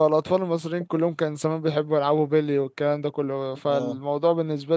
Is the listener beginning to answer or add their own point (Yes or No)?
No